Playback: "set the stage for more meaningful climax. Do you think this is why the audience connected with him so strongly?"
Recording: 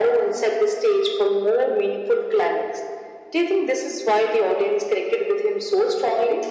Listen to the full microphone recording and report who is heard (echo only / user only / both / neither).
echo only